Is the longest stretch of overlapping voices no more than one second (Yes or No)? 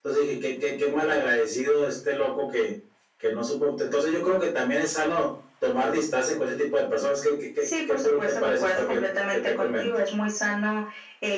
No